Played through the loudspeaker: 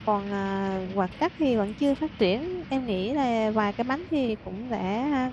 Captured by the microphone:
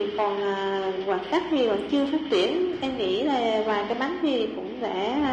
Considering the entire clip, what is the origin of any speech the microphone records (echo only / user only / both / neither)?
echo only